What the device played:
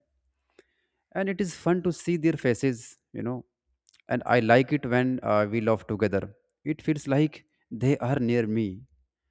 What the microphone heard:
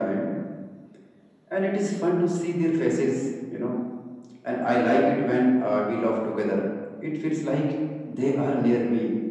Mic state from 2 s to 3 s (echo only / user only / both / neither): echo only